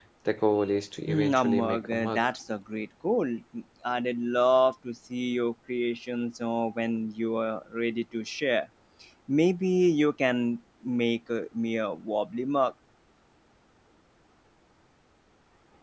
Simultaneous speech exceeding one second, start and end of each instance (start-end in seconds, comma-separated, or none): 1.1-2.3